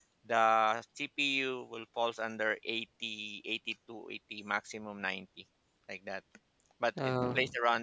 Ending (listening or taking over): listening